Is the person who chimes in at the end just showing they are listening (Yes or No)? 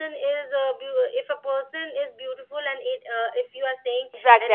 No